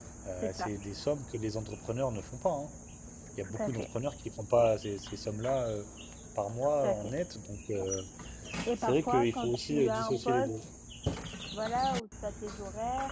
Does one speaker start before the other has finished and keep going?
Yes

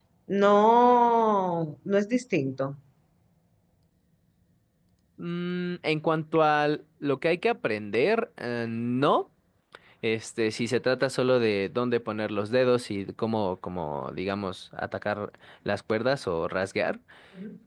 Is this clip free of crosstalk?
Yes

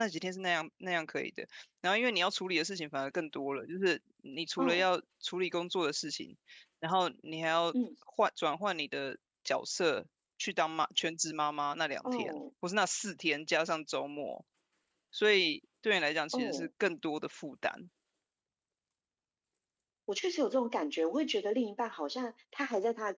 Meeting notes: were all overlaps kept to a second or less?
Yes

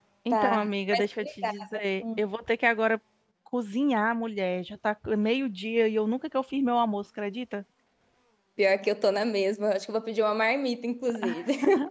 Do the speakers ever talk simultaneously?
Yes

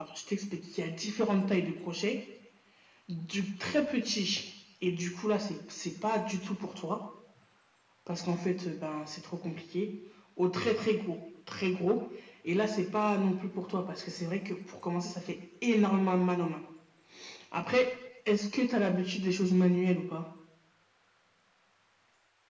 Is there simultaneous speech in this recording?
No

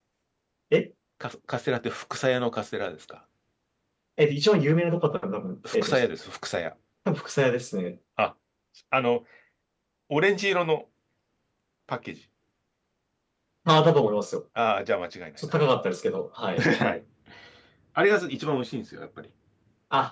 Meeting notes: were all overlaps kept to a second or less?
Yes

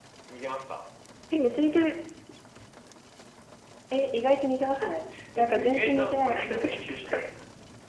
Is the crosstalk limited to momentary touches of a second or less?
No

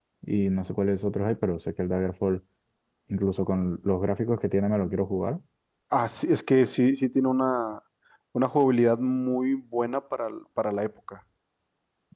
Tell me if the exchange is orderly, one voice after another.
Yes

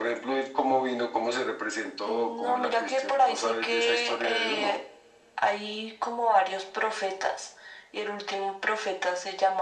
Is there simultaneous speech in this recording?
Yes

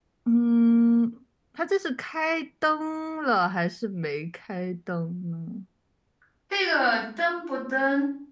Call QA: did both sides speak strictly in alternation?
Yes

